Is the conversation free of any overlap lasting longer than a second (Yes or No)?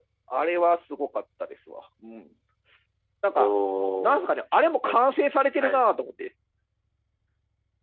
Yes